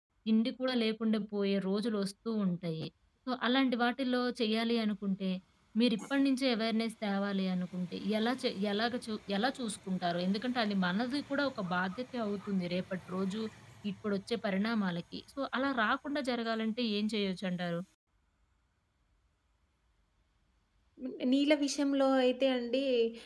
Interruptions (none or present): none